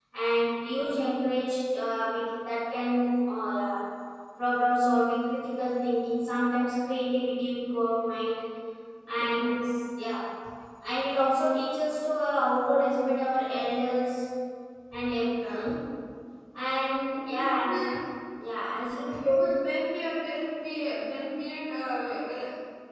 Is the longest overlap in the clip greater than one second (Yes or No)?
No